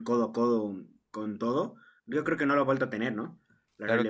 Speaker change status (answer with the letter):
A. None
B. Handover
B